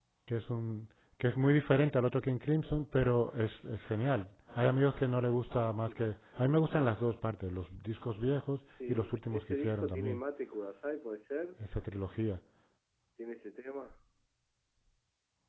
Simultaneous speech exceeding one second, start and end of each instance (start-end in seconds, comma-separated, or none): 8.8-10.2